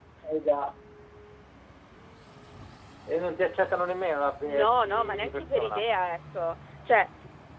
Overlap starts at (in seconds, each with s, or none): 4.4 s